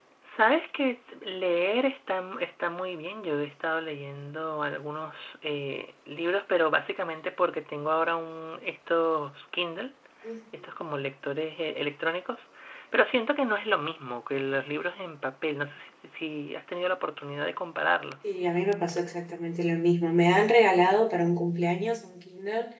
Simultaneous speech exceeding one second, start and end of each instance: none

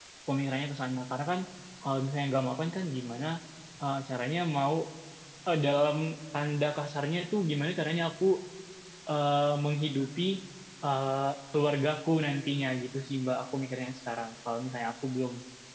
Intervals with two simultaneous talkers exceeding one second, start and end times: none

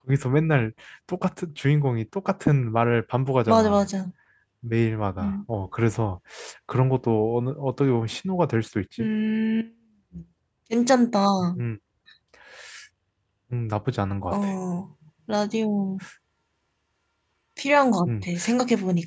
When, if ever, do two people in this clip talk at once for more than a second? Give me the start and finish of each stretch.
none

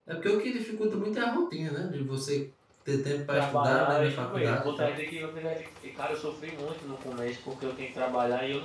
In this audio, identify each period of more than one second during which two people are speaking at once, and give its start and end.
3.3-4.9

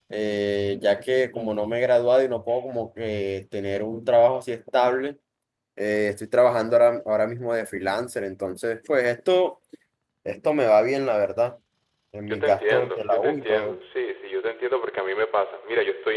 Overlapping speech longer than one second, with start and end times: 12.3-13.7

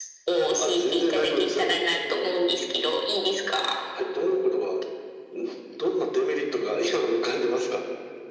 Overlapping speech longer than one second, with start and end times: 0.6-1.9

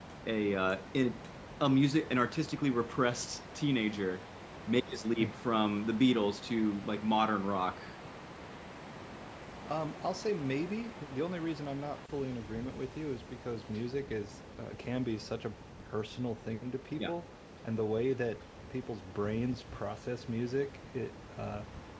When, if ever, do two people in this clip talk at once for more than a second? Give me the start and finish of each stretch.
none

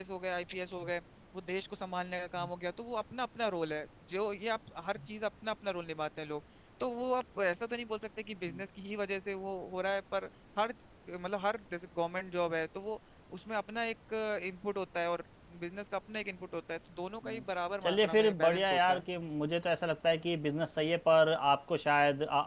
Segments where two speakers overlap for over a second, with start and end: 17.8-19.0

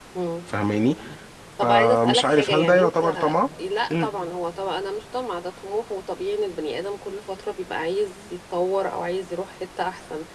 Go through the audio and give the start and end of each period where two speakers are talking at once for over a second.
1.6-3.3

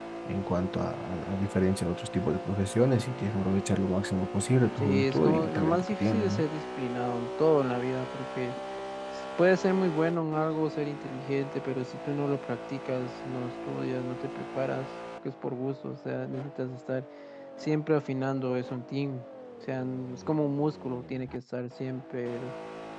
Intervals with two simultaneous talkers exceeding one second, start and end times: 4.8-6.4

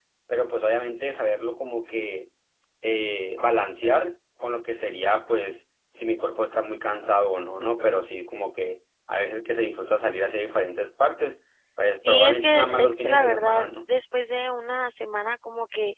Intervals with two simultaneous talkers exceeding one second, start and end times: 12.1-13.7

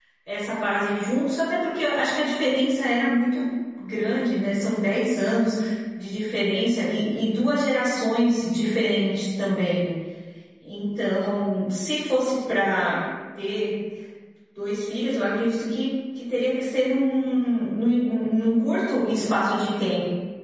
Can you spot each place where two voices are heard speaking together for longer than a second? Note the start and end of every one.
none

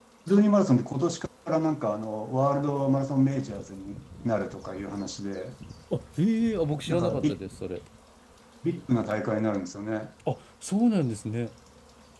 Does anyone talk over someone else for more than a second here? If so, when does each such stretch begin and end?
none

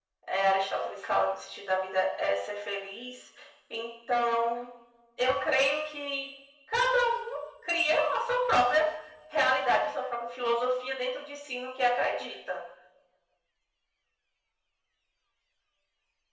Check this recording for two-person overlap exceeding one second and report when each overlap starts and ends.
none

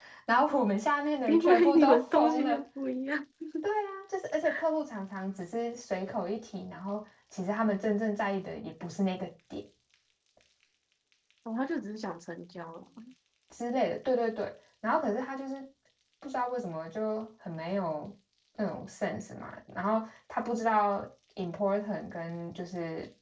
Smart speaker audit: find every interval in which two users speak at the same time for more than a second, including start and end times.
1.3-2.6

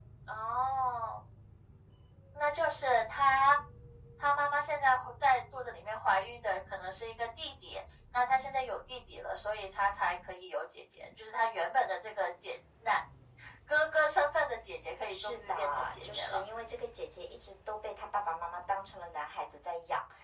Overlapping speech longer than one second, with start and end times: 15.1-16.4

